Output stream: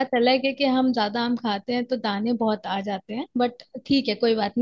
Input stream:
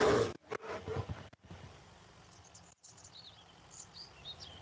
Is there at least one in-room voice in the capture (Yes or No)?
No